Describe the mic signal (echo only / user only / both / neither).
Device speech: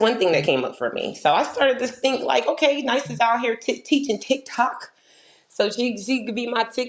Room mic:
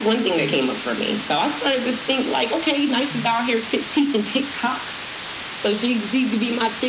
echo only